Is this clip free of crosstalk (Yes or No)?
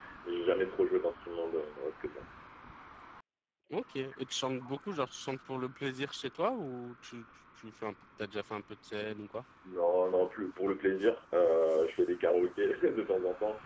Yes